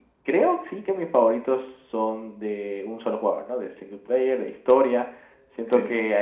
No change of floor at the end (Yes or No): Yes